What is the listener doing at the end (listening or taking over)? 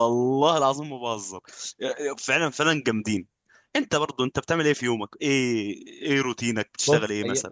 taking over